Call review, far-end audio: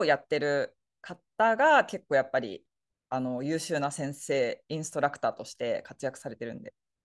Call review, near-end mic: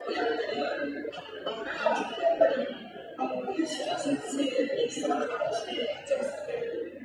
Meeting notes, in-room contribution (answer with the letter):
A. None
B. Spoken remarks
A